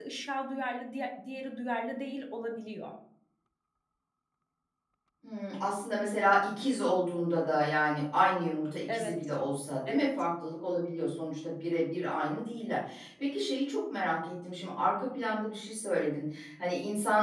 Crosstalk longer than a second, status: none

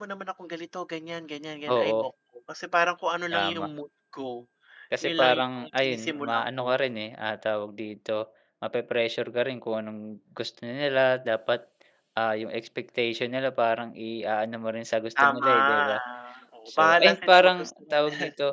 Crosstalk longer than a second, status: present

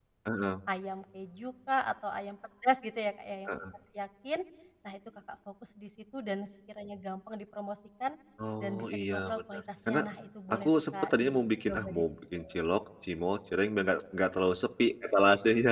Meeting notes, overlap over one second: present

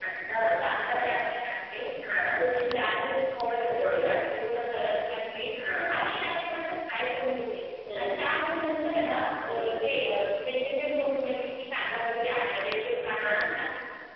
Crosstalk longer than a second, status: none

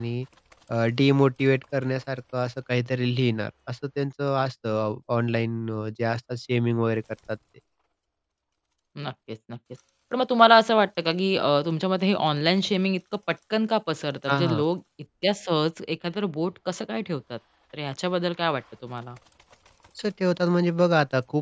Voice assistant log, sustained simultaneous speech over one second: none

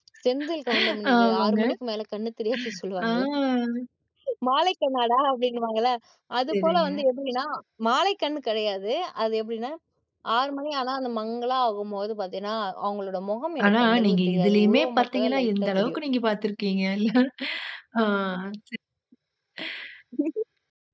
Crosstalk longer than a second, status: present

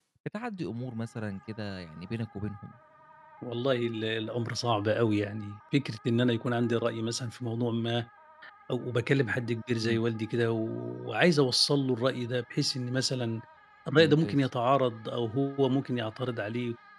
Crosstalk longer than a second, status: none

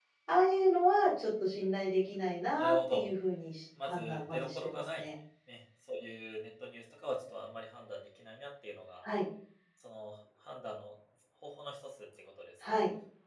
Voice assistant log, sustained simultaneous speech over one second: present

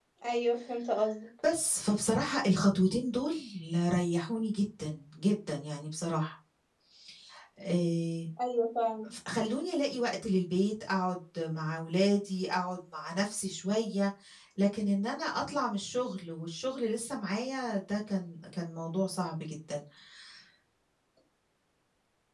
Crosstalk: none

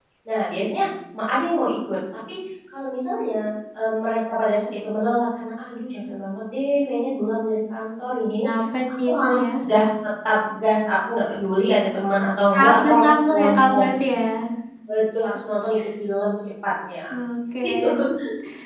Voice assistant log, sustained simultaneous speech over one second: present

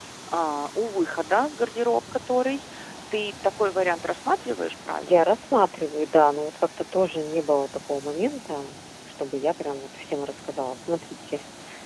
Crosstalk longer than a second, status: none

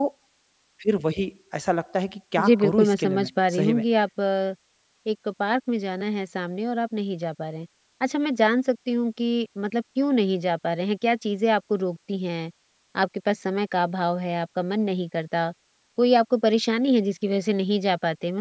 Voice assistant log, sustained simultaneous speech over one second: present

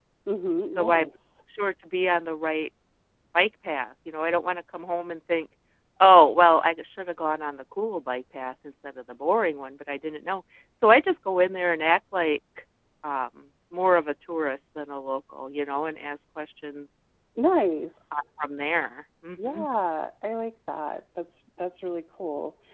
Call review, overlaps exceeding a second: none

